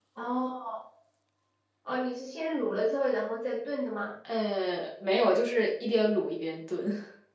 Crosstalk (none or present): none